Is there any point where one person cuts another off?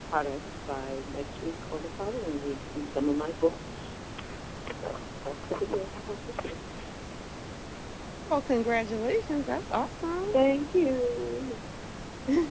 No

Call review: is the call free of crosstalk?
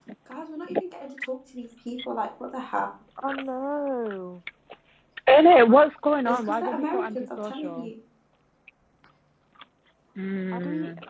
No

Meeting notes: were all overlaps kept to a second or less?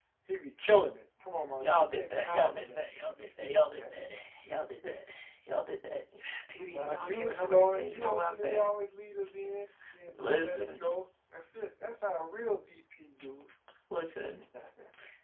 No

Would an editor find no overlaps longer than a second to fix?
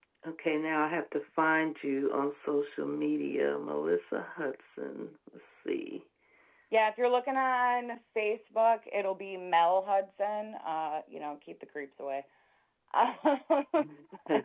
Yes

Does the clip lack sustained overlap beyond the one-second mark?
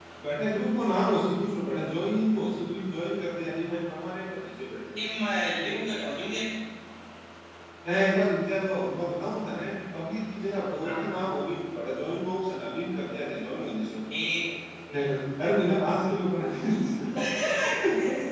Yes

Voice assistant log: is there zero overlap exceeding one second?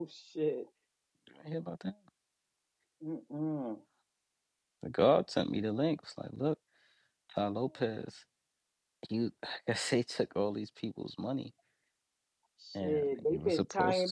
No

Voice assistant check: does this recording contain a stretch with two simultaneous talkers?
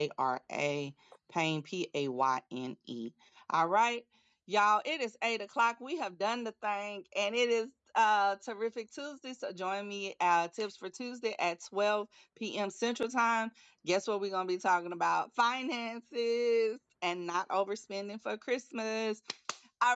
No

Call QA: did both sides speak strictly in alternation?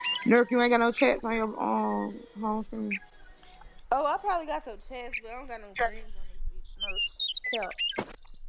Yes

